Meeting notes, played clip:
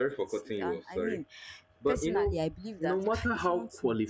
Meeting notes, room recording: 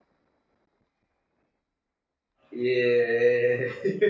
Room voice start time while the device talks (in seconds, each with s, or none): 2.5 s